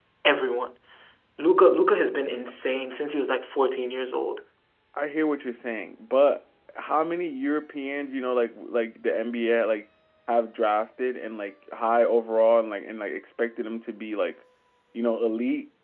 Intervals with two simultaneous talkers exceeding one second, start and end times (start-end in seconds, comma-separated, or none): none